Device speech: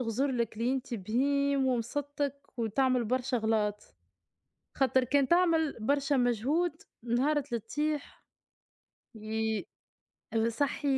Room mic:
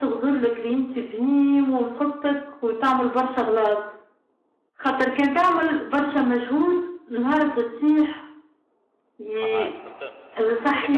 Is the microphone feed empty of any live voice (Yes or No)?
No